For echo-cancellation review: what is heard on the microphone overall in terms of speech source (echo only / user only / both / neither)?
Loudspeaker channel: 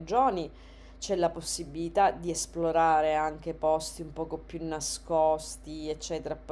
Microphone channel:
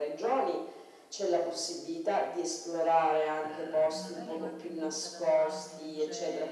both